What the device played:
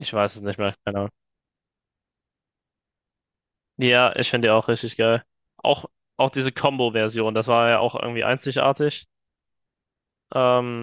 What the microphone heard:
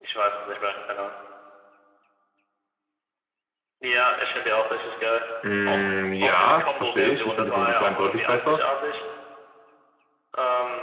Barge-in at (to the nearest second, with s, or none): 5 s